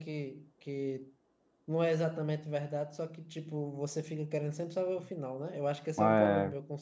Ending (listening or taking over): listening